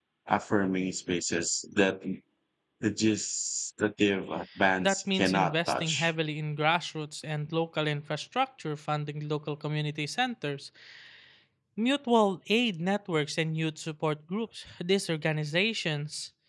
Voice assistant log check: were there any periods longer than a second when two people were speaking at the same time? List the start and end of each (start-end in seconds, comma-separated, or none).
4.8-6.1